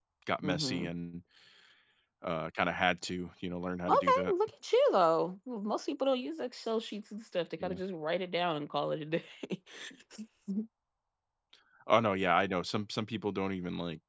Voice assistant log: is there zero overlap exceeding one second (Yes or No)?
Yes